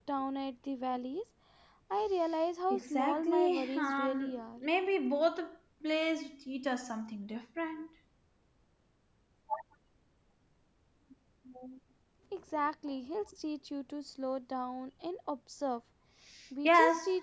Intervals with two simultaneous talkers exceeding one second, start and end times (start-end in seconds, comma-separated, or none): 2.7-4.4